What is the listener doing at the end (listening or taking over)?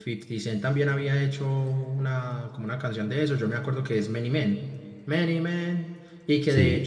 listening